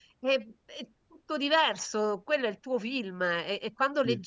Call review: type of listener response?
listening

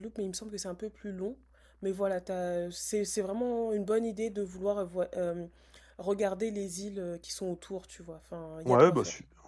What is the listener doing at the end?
taking over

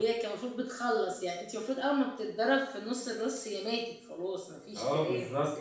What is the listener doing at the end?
taking over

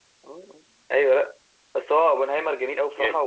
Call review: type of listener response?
listening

